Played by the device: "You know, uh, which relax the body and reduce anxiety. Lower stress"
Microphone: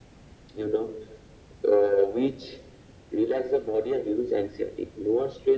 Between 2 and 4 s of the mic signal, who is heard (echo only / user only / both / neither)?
echo only